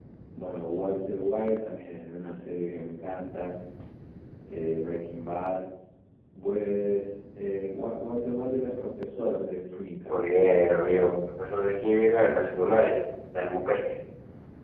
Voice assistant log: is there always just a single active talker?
Yes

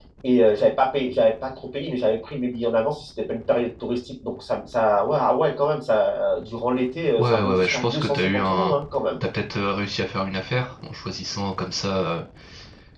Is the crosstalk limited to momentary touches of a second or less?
No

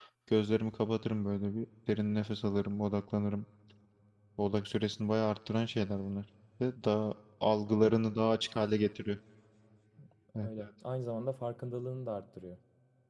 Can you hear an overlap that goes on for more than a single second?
No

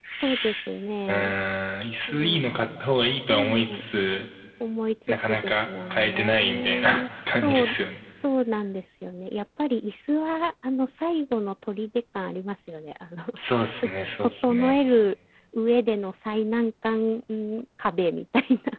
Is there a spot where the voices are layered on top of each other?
Yes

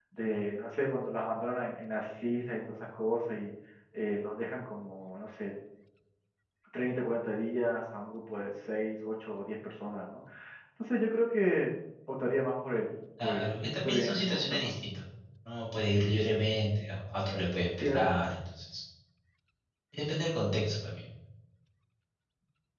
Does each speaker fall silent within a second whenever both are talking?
No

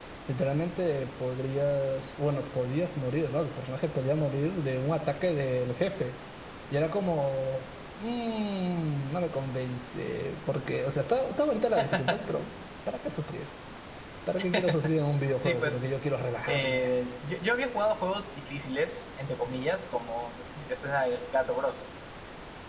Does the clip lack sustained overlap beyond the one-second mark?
Yes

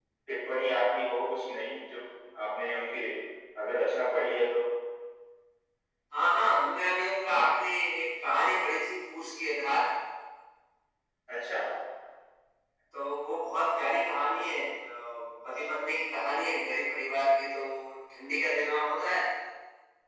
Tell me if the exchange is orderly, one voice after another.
Yes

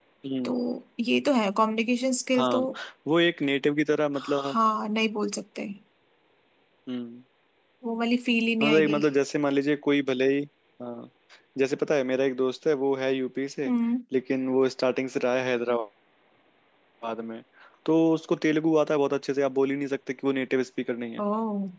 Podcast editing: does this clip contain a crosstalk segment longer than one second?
No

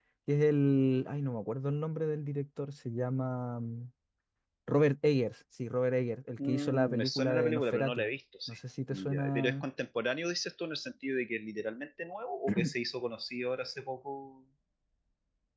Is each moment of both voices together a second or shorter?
No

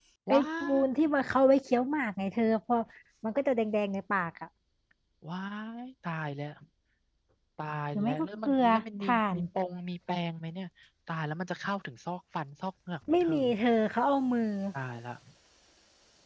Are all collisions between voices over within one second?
No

